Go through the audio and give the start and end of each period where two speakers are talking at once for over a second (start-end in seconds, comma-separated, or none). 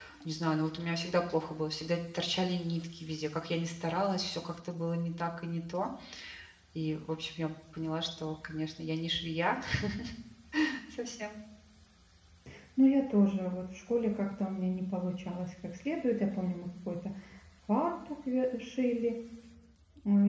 none